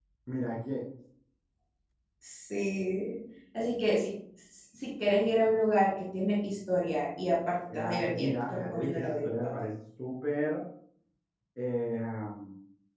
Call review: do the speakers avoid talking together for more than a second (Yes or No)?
No